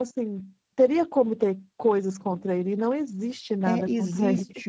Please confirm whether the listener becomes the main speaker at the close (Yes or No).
Yes